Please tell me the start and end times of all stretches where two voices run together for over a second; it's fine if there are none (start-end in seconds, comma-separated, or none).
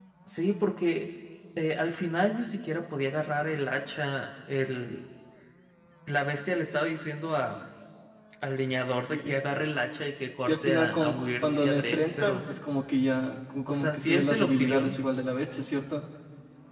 10.5-12.4, 13.7-14.9